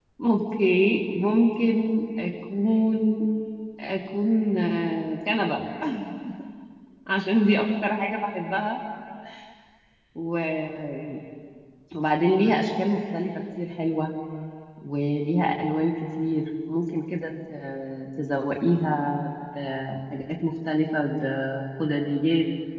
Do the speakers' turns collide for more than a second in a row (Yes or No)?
No